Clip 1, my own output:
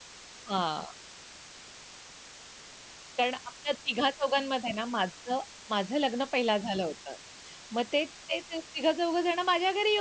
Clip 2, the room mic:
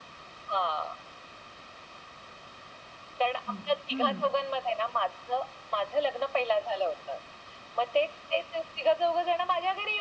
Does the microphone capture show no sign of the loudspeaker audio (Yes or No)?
No